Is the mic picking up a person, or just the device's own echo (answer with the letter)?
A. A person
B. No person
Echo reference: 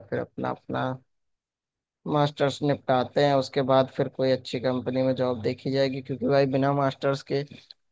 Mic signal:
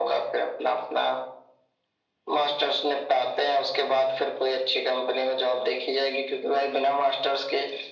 B